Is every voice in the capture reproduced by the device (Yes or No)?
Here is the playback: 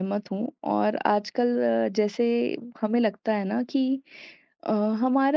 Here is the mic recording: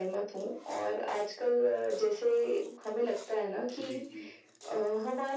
No